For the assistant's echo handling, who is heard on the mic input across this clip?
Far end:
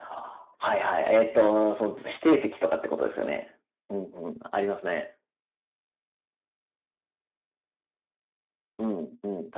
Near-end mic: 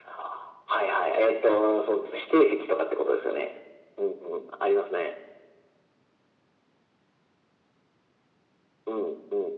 echo only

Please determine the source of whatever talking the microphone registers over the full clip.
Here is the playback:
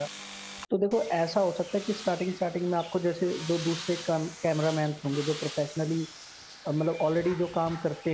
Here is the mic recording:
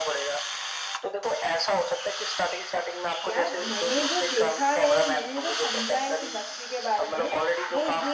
both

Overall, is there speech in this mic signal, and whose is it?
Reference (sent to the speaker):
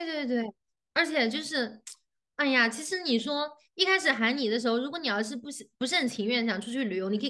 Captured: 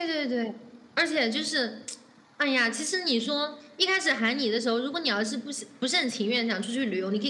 echo only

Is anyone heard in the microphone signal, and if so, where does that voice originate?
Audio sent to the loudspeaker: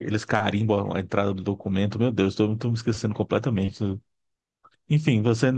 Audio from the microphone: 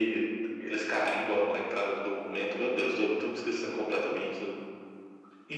echo only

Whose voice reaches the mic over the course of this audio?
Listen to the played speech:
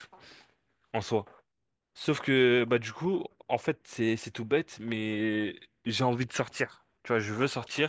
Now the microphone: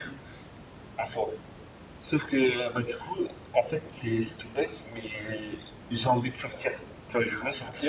echo only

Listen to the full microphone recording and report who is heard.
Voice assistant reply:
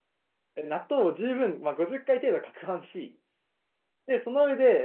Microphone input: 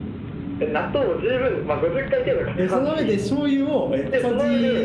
both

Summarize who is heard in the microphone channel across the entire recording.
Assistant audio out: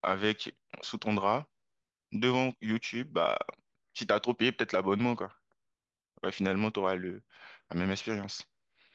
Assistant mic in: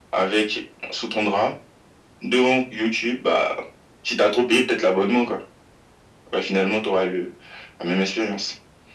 echo only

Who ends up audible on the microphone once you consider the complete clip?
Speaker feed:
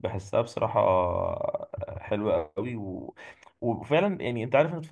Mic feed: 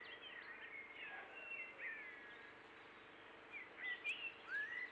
neither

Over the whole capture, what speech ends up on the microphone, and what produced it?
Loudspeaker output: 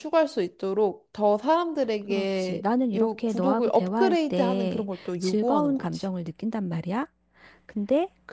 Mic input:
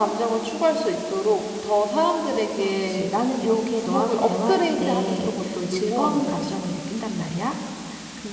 echo only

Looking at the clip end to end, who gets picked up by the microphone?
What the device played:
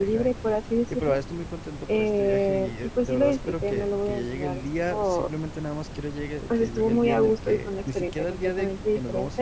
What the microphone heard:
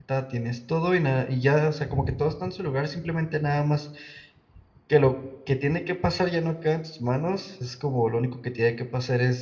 user only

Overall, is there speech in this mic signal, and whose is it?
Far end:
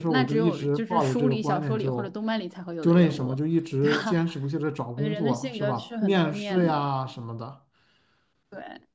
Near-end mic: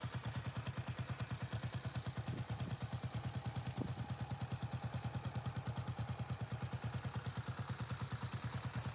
neither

